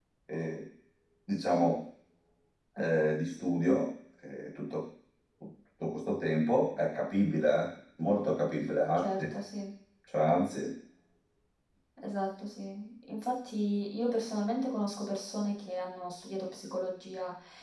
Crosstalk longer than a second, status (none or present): none